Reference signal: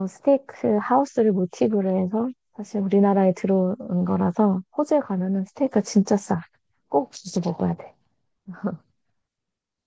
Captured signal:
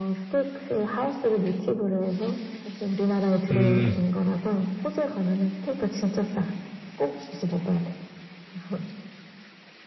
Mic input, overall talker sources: both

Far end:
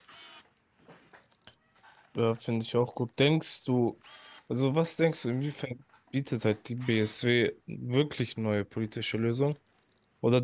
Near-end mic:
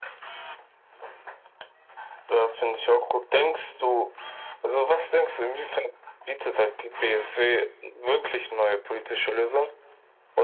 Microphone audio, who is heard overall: echo only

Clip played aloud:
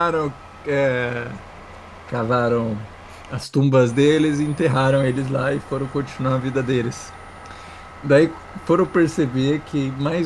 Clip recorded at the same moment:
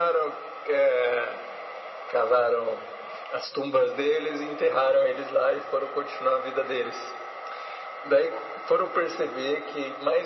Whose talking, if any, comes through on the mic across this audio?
echo only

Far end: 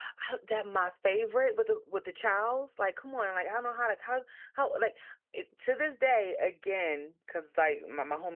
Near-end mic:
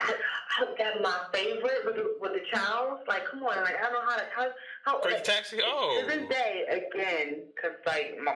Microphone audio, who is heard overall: both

